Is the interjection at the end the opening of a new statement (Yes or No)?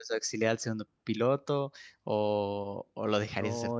Yes